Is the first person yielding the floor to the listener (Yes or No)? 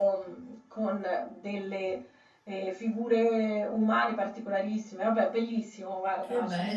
Yes